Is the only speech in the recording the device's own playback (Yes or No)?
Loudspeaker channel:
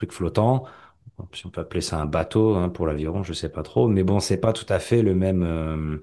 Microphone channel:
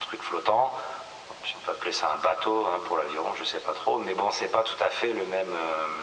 Yes